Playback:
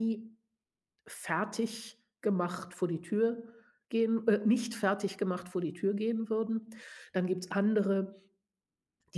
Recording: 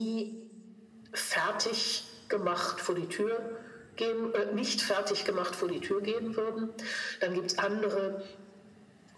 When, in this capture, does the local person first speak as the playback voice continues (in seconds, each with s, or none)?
none